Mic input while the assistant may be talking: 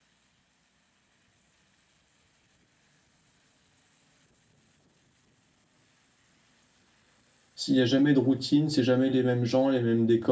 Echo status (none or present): none